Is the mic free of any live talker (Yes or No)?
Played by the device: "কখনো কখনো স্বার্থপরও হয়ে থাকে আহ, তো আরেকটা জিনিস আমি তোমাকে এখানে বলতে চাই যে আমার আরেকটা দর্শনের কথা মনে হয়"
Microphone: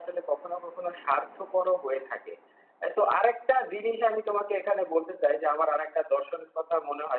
Yes